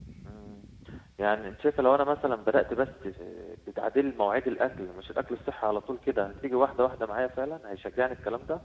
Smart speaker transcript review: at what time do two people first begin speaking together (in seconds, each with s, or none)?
none